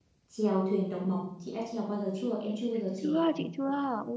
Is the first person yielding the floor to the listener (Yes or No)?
Yes